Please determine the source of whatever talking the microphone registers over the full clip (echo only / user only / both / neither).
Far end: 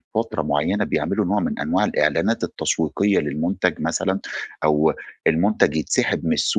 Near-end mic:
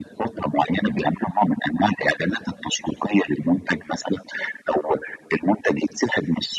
echo only